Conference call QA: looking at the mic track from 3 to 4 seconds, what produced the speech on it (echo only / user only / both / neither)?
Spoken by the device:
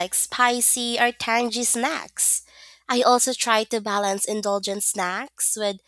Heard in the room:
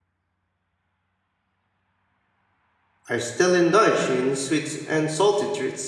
user only